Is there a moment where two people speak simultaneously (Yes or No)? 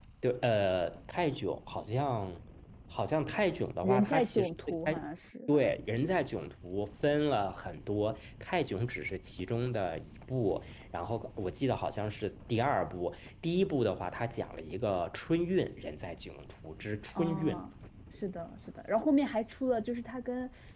Yes